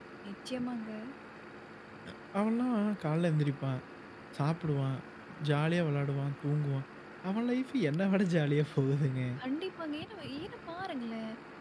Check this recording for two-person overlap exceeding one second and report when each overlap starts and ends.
none

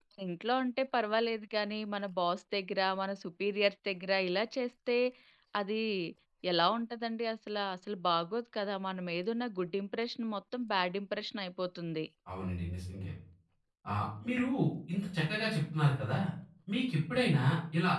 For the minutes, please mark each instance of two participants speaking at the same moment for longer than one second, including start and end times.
none

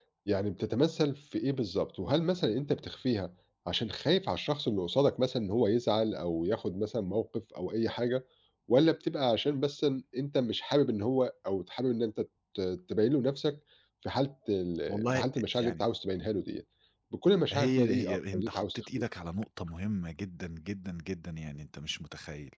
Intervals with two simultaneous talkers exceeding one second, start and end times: 17.5-18.9

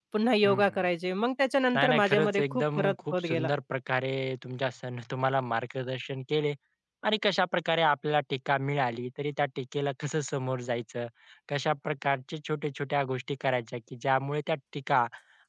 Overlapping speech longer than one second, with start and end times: 1.7-3.5

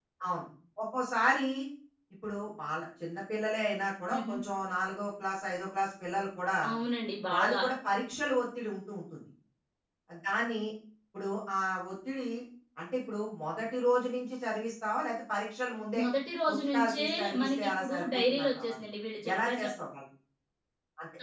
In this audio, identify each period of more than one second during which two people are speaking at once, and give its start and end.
16.5-18.8

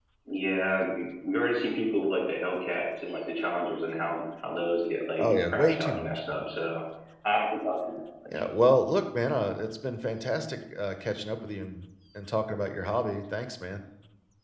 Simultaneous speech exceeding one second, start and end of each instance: 5.2-6.4

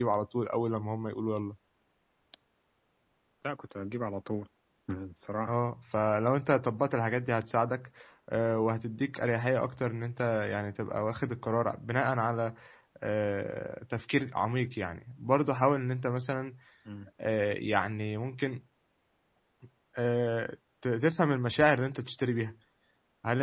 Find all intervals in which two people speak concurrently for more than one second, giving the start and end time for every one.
none

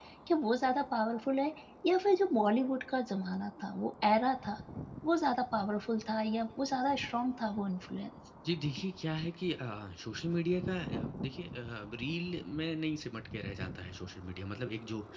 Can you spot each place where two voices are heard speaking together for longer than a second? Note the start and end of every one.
none

